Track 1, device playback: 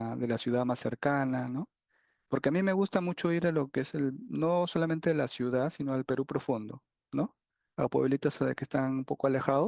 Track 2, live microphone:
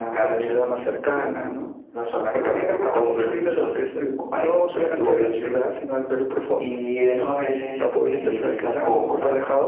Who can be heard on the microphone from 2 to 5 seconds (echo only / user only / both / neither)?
both